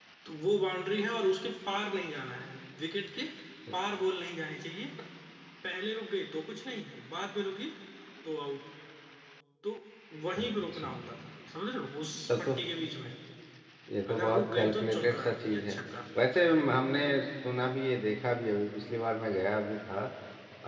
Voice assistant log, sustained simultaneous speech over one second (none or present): present